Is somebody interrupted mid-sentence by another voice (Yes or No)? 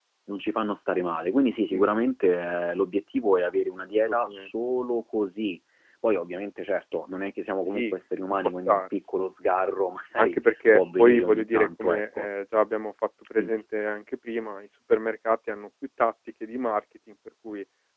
Yes